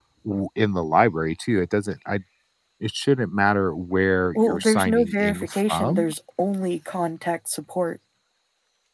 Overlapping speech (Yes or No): Yes